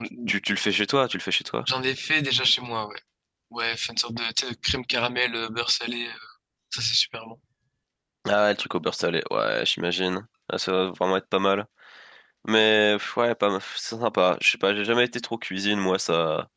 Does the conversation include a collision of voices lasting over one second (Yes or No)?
No